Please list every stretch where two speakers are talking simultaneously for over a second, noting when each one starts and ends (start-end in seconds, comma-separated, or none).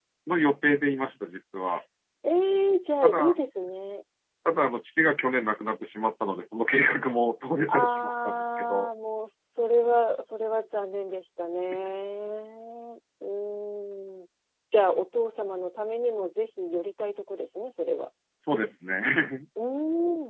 7.7-8.9